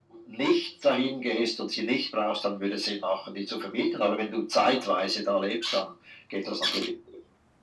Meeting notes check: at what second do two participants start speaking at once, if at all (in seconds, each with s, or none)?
none